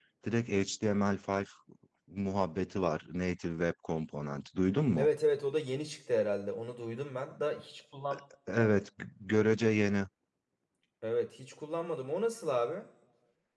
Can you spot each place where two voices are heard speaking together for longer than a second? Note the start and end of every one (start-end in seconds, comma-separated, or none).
none